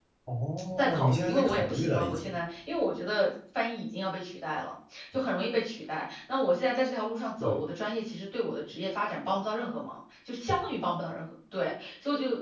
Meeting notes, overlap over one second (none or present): present